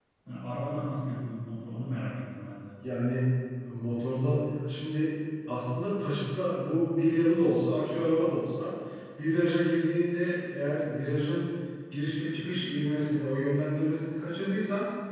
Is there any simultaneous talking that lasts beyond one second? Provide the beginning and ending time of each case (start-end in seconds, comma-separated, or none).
none